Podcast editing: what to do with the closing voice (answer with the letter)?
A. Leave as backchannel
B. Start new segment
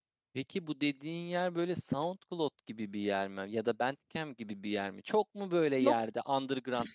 A